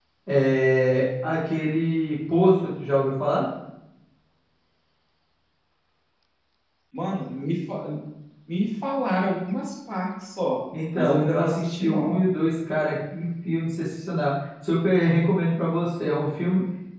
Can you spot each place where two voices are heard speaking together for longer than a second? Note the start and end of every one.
10.9-12.2

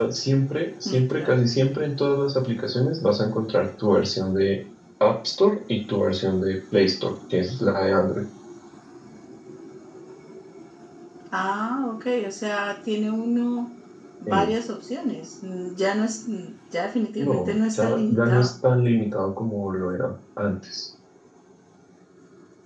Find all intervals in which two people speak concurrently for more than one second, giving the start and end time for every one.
17.3-18.5

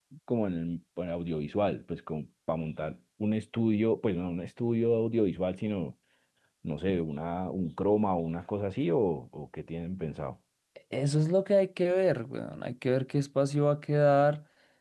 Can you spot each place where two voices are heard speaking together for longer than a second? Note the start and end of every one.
none

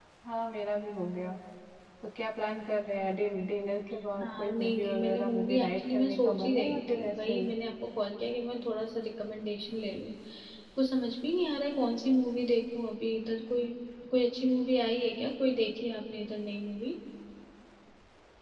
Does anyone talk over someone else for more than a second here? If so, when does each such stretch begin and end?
4.2-7.5

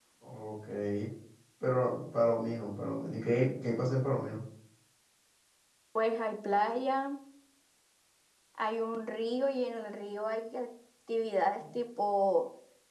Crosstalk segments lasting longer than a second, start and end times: none

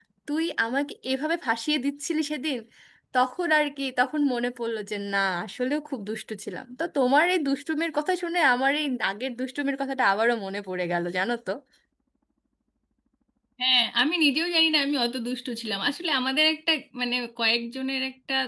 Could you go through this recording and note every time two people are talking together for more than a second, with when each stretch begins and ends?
none

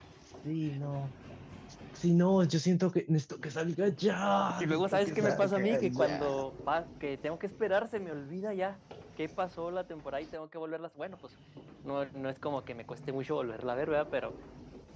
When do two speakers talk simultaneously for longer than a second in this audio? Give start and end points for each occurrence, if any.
4.6-6.3

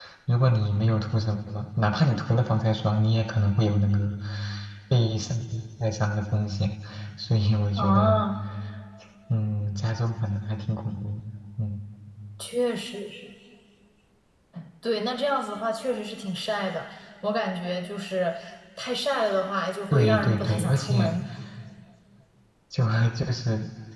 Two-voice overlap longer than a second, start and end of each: 19.9-21.1

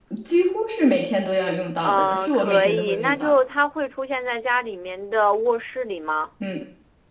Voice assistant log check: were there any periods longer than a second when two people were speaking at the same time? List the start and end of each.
1.8-3.3

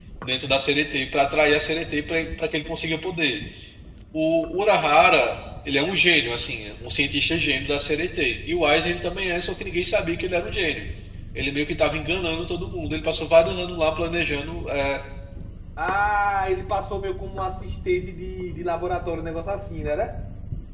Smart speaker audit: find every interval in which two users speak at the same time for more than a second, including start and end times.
none

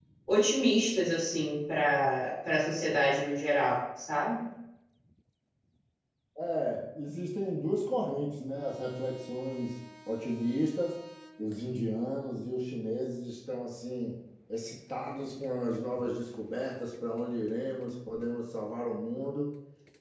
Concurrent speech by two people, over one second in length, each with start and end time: none

